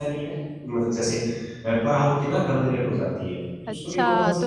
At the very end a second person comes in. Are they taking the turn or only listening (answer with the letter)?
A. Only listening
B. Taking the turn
B